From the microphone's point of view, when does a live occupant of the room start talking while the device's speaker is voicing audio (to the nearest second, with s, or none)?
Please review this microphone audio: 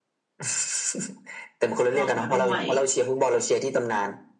2 s